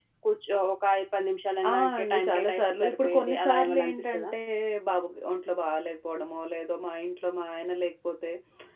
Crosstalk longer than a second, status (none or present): present